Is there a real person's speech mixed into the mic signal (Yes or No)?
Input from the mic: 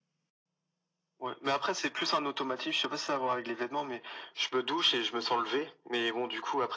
No